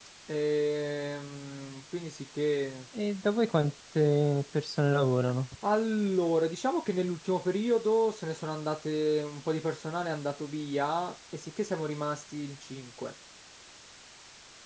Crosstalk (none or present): none